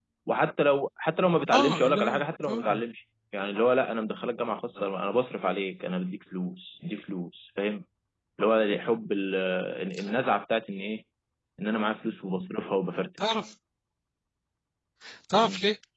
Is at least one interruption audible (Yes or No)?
Yes